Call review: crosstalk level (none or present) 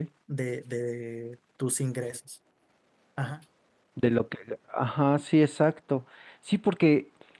none